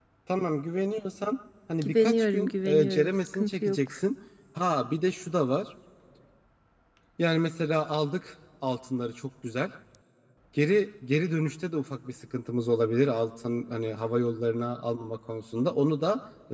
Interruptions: present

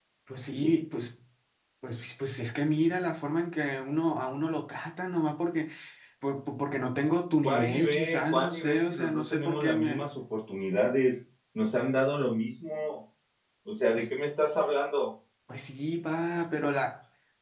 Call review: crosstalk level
present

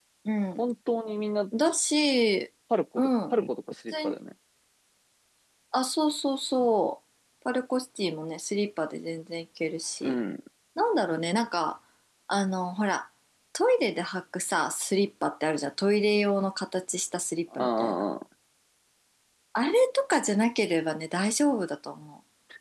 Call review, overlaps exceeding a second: none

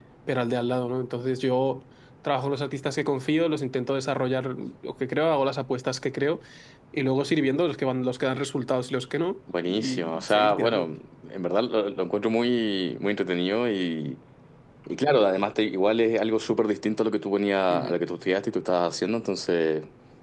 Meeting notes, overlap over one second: present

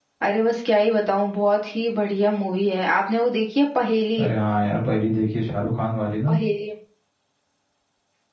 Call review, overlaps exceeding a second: none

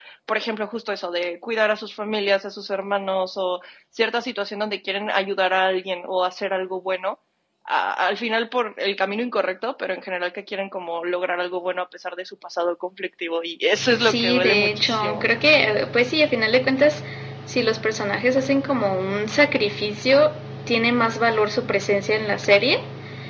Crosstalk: present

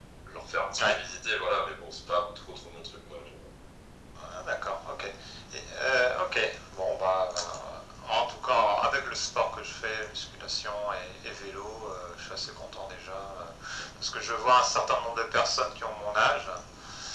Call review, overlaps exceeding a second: none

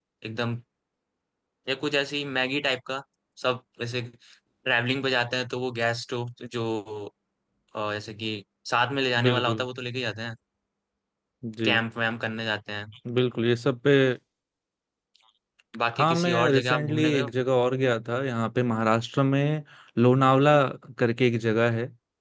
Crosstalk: present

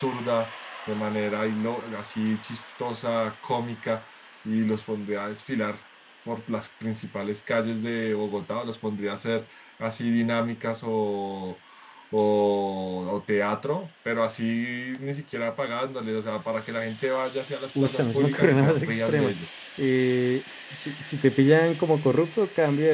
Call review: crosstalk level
present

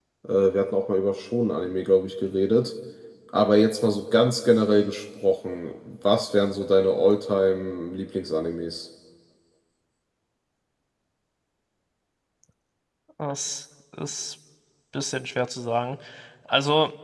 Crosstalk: none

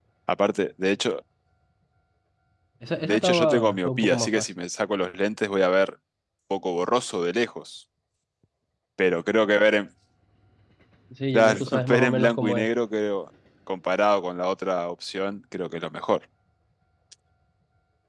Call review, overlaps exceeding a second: present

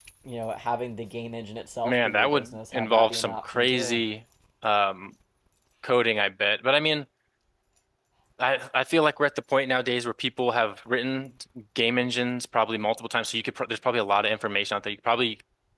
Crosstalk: present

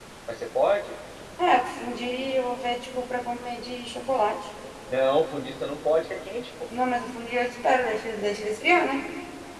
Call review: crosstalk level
none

